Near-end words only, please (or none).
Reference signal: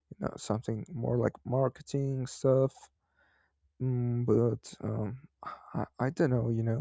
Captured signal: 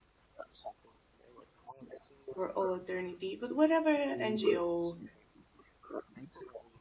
for all eternity. But whatever NGO,